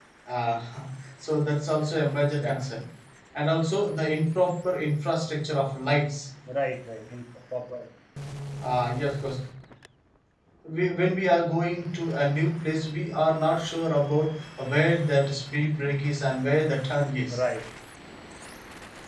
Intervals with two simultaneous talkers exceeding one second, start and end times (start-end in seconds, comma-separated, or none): none